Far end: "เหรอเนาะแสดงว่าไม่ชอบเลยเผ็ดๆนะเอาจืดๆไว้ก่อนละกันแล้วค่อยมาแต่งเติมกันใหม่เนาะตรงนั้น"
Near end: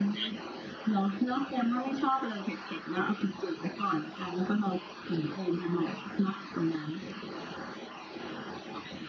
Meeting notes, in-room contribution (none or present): none